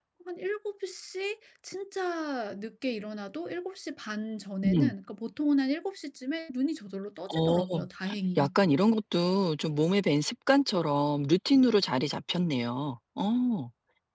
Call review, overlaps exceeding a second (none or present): none